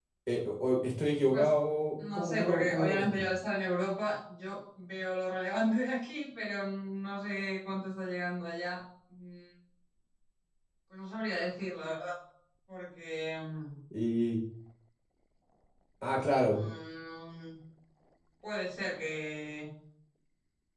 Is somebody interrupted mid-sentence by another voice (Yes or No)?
Yes